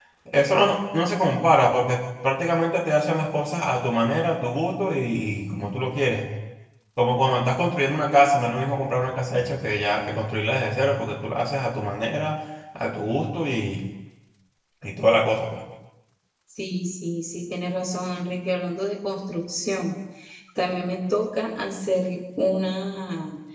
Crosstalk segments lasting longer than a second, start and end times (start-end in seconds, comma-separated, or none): none